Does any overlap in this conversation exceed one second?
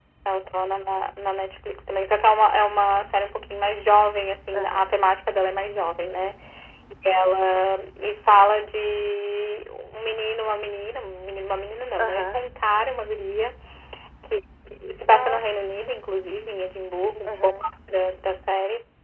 No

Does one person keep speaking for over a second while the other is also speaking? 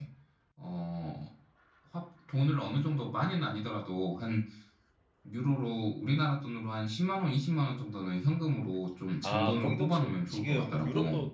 Yes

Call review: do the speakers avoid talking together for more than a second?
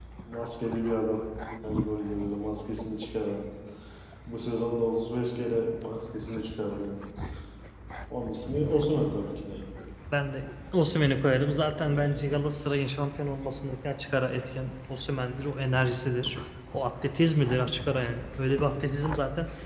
Yes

